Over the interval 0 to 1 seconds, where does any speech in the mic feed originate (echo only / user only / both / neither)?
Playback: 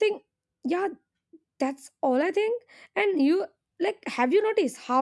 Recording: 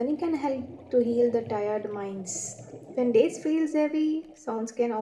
user only